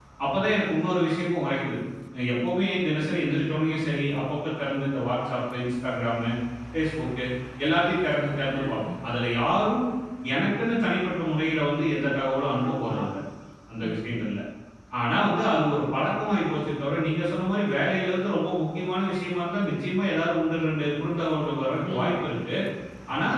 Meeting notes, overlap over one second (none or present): none